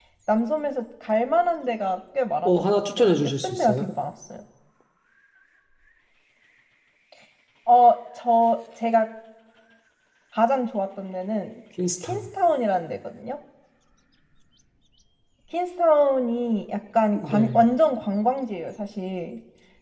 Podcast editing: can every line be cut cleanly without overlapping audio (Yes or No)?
No